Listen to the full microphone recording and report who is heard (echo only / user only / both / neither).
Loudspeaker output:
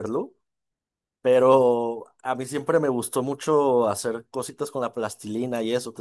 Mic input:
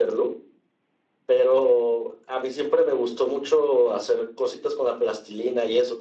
echo only